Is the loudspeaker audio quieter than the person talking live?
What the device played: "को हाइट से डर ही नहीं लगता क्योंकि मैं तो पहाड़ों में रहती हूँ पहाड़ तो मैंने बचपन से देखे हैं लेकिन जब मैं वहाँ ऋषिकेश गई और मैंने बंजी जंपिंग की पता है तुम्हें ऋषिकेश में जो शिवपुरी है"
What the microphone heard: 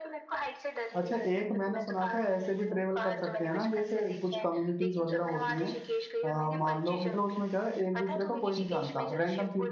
Yes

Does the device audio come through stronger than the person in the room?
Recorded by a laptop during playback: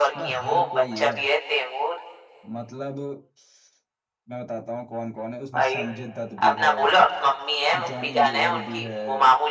Yes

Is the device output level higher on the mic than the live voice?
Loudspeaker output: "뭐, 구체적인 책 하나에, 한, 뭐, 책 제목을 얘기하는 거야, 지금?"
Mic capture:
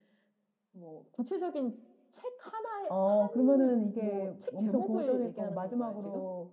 No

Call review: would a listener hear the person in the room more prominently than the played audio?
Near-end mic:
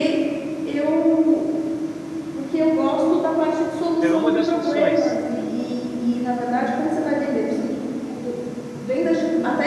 No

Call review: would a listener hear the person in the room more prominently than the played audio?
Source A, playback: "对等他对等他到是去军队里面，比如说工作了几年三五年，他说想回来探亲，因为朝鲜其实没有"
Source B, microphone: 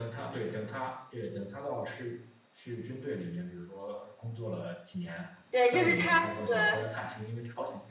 Yes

